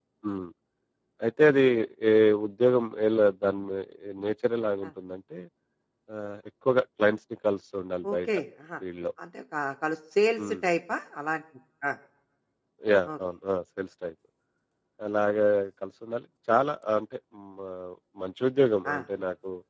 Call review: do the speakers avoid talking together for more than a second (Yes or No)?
Yes